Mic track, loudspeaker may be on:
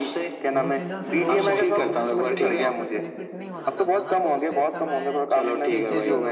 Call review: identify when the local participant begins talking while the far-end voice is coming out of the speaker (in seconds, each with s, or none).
0.6 s